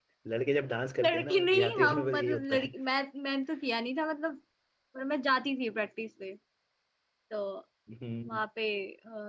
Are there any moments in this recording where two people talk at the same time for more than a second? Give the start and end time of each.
1.0-2.7

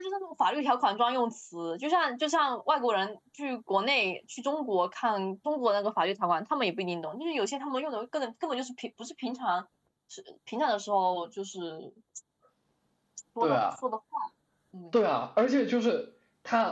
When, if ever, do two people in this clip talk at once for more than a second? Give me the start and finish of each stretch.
none

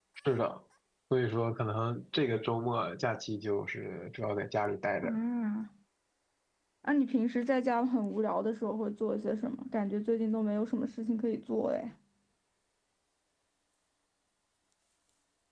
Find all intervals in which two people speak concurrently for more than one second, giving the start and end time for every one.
none

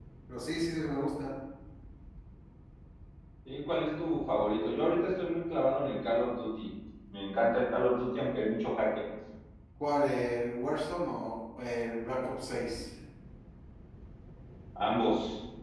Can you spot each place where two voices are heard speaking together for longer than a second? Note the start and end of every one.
none

